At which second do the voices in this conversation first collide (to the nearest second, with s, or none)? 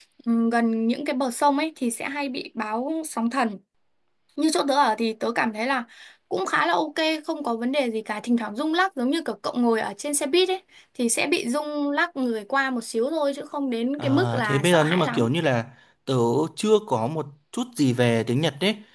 14 s